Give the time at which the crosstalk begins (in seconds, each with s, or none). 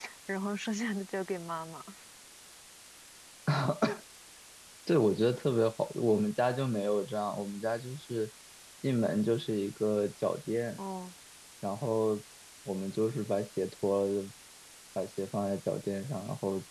none